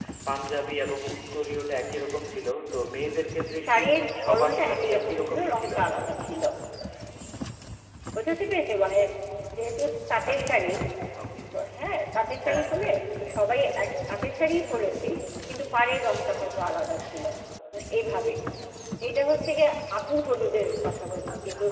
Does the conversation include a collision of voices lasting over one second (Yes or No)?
Yes